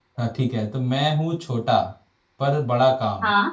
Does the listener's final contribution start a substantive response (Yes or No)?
No